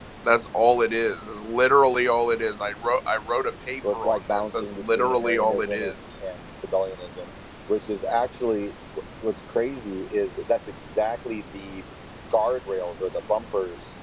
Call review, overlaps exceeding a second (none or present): present